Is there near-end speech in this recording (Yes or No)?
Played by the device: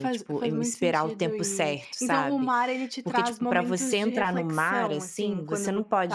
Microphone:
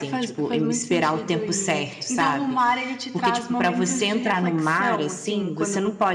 No